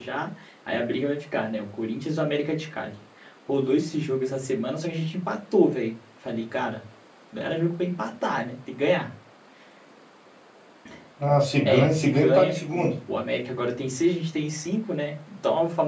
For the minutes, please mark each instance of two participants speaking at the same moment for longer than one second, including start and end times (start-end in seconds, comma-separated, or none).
11.6-12.9